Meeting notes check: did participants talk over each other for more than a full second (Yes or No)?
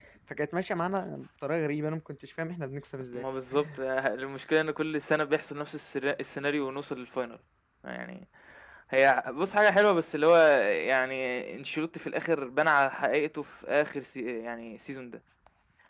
No